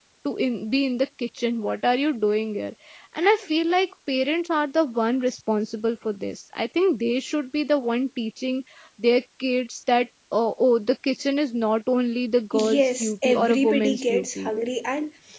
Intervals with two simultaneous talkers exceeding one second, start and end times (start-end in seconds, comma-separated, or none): 12.7-14.5